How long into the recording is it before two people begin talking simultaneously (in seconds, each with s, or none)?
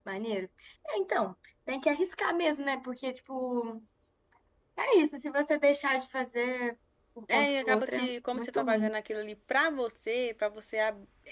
7.3 s